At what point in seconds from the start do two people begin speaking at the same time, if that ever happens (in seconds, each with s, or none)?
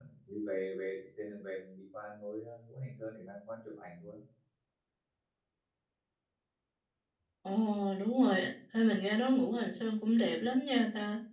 none